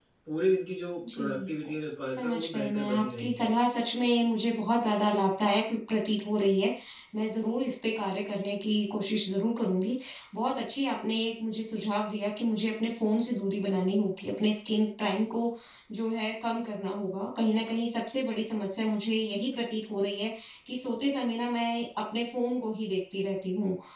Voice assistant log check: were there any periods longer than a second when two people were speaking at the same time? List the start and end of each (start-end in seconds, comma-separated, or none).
2.2-3.4